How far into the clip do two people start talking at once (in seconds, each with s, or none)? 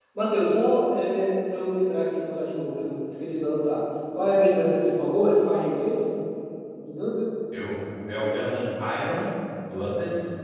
none